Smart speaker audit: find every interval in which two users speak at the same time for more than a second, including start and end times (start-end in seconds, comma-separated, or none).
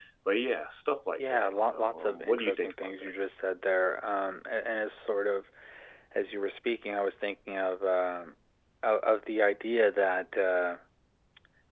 1.2-3.1